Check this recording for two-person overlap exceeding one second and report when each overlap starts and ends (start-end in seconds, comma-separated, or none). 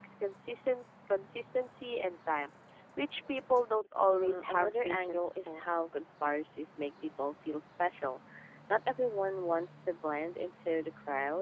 4.1-5.6